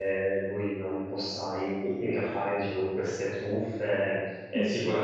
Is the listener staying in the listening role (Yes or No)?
Yes